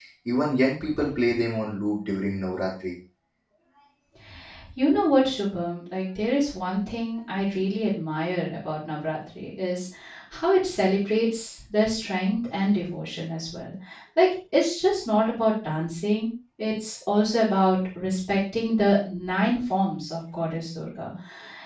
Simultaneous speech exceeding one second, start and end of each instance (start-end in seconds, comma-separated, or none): none